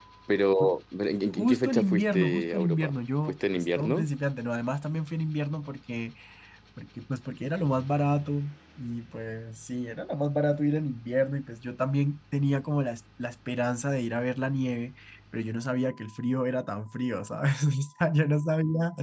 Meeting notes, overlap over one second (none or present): present